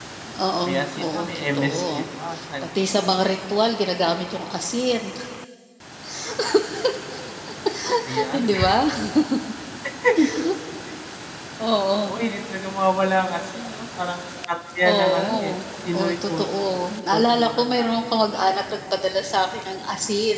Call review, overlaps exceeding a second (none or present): present